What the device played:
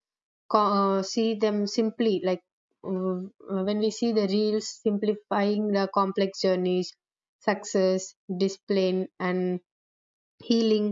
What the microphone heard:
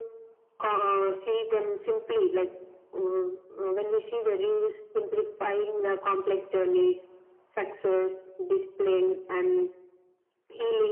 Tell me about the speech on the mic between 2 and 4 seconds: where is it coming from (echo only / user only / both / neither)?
echo only